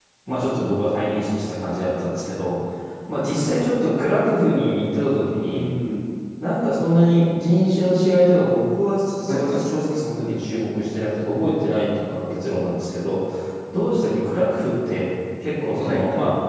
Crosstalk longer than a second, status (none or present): none